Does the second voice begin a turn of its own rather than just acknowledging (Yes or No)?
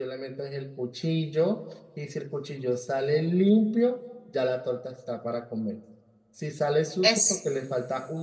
No